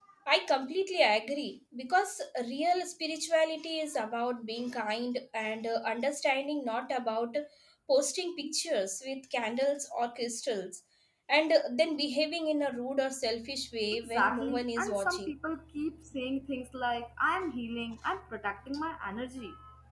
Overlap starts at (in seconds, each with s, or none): 13.9 s